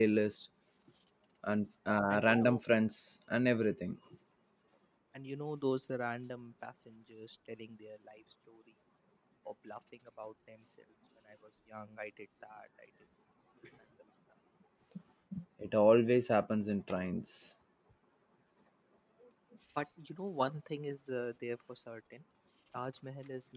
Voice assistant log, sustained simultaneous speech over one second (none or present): none